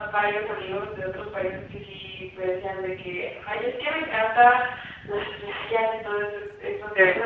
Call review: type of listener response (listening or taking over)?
listening